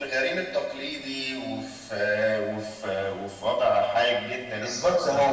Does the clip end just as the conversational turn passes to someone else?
Yes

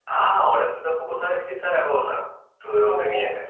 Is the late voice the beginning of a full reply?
No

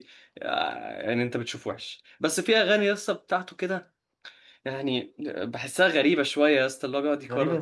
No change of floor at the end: No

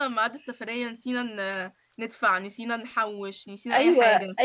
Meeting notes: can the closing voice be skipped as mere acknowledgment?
No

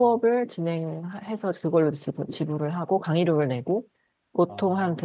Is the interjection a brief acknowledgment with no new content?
Yes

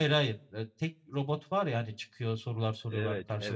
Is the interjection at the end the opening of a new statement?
Yes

